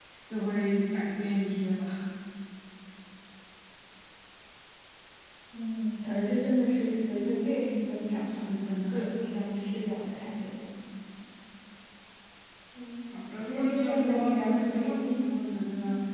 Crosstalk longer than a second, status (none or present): present